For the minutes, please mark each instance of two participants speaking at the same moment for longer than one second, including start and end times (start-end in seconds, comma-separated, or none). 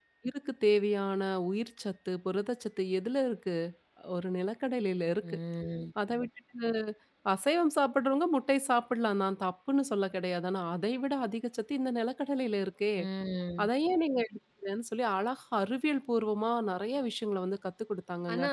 none